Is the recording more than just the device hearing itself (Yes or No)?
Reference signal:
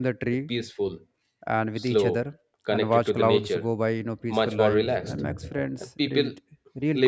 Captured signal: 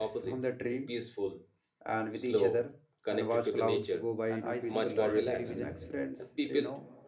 Yes